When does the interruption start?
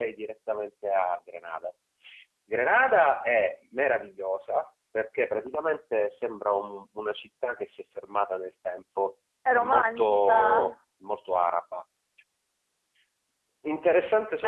9.4 s

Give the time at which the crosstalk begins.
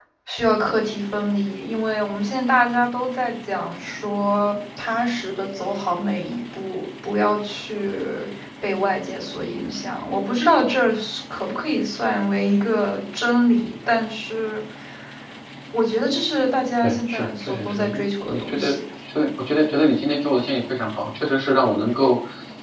16.8 s

